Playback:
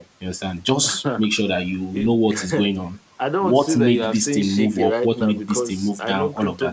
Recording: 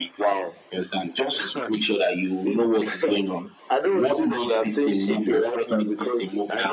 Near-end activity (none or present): none